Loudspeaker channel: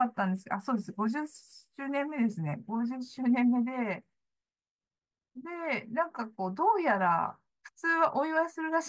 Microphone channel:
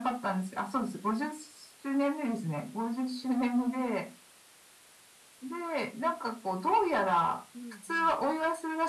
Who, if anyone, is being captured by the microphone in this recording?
both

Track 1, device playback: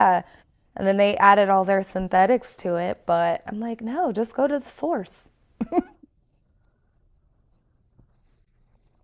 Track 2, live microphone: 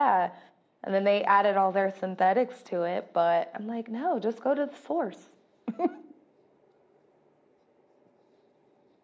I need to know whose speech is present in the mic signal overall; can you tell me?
echo only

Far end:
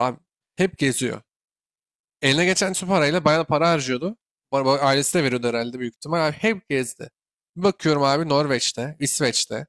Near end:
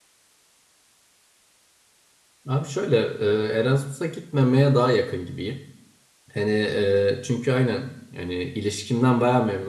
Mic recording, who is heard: user only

